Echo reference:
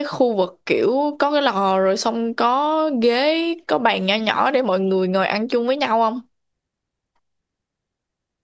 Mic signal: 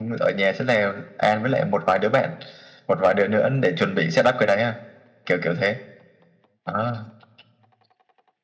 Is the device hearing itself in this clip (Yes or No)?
No